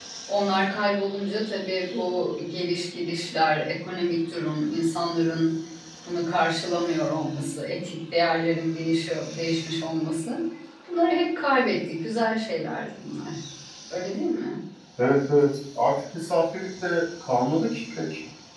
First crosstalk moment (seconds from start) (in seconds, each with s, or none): none